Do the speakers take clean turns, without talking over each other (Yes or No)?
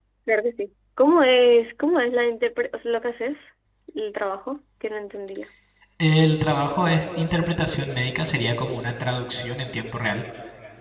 Yes